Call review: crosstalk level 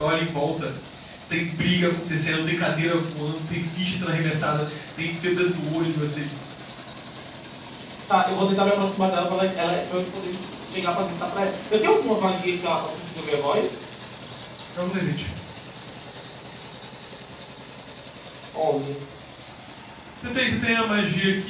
none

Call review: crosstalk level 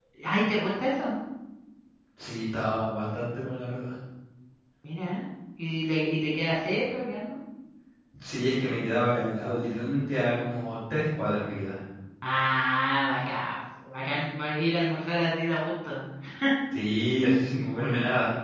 none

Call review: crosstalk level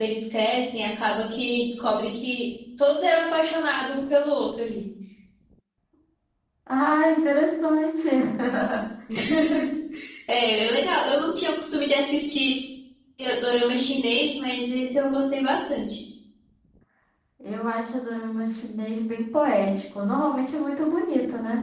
none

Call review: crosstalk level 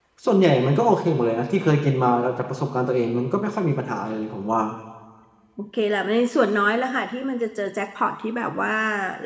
none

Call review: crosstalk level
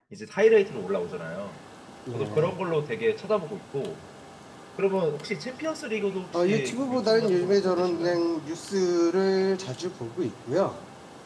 present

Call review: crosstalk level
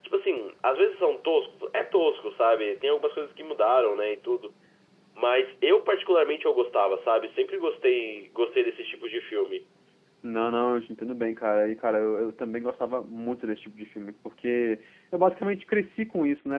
none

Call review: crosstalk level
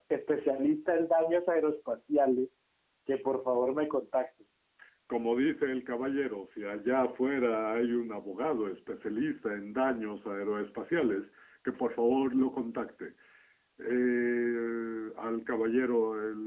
none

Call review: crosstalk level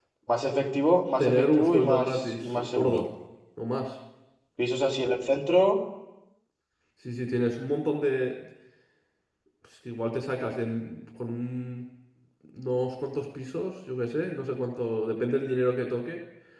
present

